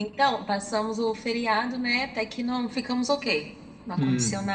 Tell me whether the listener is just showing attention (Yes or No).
Yes